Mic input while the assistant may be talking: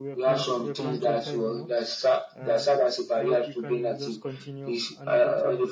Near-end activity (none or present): present